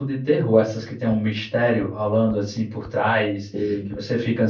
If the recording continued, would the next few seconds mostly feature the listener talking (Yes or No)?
No